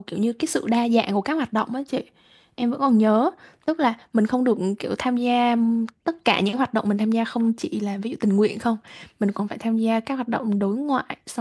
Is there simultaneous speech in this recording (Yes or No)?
No